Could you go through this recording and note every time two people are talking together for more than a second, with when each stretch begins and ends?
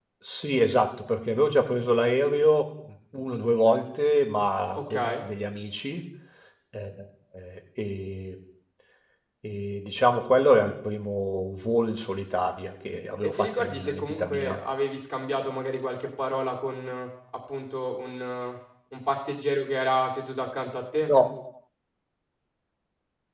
13.2-14.6

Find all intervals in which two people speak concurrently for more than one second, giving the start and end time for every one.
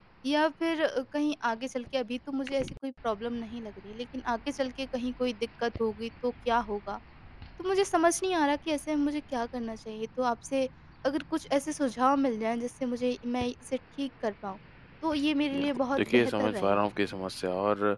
15.6-16.9

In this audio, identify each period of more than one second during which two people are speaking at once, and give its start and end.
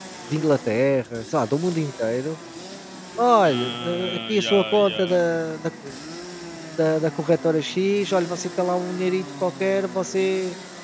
3.5-5.2

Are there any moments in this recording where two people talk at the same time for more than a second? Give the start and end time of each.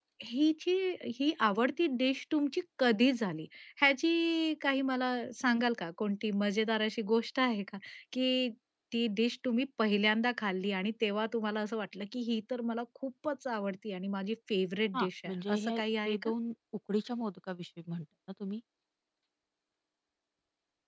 14.9-16.3

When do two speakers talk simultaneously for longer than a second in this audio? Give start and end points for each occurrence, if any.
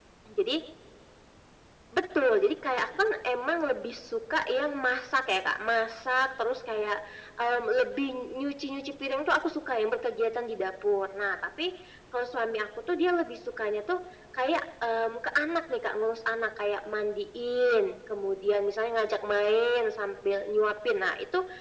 none

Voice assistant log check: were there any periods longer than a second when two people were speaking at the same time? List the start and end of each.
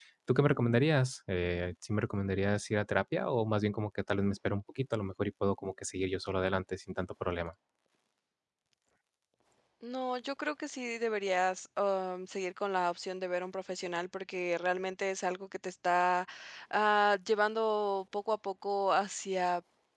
none

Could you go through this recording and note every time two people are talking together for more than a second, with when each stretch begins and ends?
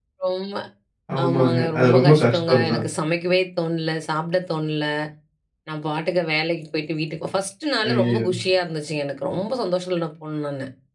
1.2-2.9

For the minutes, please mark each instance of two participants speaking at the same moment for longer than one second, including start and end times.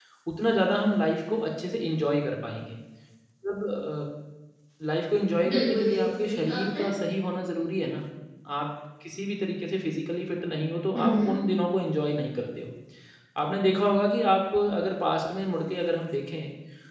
5.5-6.8

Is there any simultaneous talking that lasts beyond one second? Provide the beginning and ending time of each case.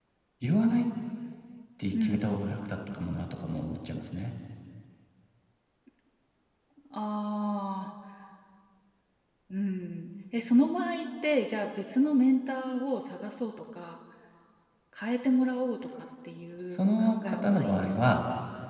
16.7-18.2

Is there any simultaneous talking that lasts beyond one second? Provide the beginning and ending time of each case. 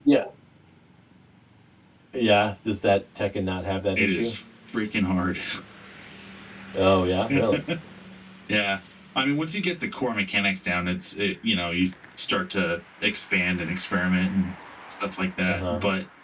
none

